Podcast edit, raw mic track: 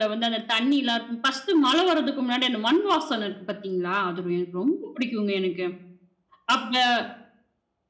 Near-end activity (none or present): none